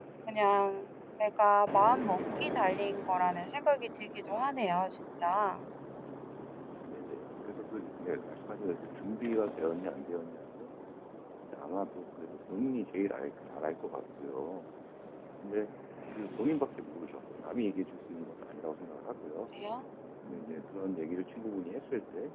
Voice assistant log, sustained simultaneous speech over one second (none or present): none